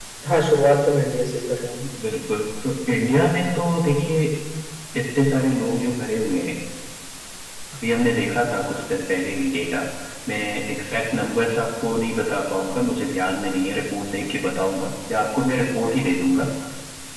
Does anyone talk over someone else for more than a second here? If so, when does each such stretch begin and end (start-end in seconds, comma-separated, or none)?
none